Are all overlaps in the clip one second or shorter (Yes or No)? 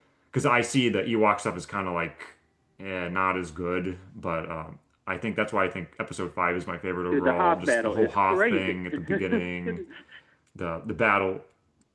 No